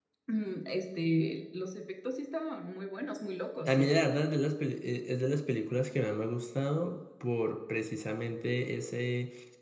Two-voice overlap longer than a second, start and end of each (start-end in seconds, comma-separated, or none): none